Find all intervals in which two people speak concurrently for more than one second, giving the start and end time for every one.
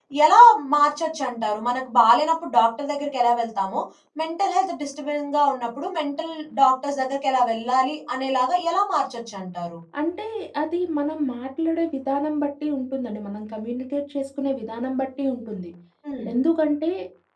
none

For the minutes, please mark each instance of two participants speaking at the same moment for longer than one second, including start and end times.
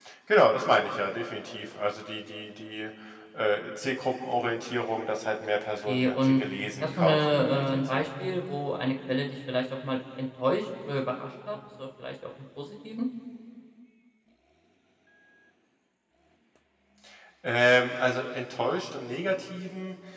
6.8-8.0

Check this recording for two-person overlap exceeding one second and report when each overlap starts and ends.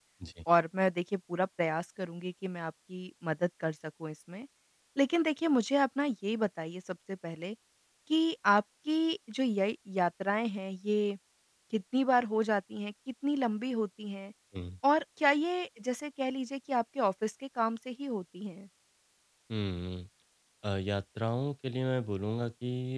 none

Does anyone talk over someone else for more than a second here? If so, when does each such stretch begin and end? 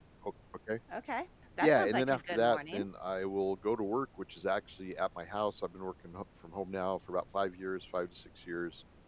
1.6-2.9

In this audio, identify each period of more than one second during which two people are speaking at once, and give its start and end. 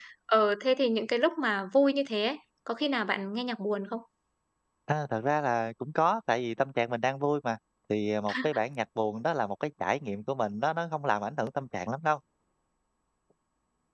none

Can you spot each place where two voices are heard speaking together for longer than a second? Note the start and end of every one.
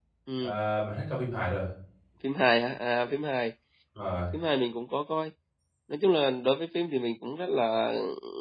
none

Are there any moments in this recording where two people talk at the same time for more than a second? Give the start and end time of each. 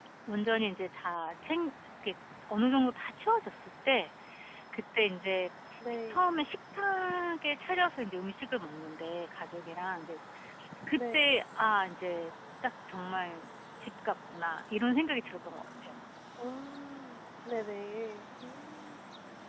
none

